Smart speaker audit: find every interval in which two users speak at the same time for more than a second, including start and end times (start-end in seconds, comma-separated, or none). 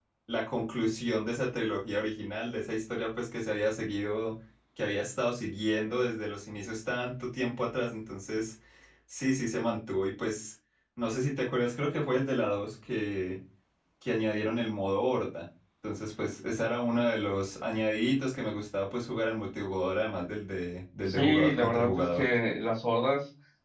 21.1-22.3